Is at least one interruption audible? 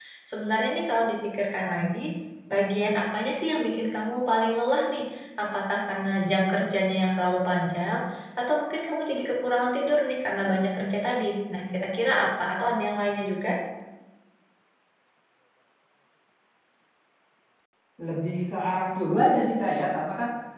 No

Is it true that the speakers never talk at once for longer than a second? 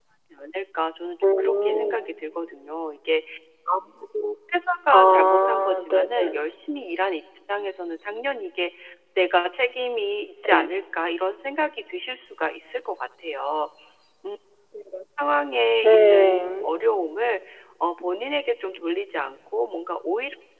No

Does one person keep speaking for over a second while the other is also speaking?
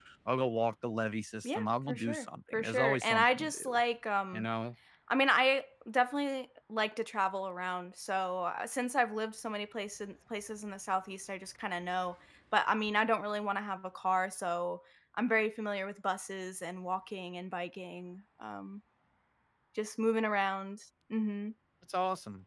Yes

